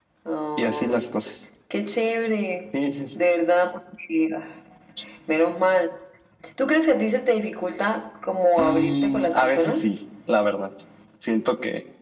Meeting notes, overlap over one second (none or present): present